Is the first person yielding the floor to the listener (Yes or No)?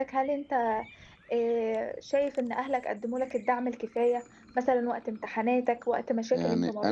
Yes